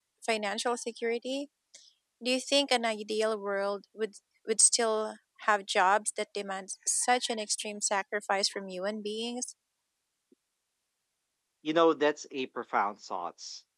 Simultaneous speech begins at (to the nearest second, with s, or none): none